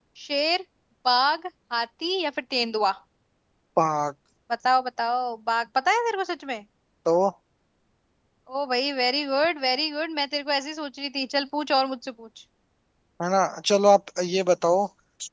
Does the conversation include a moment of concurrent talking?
No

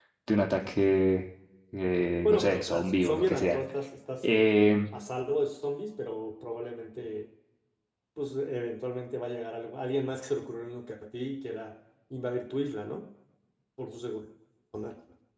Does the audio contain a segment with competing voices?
Yes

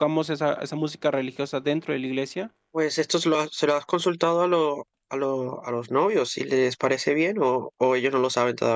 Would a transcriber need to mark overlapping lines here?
No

